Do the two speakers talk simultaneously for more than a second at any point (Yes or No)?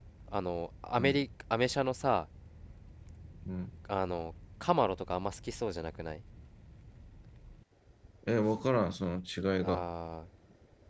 No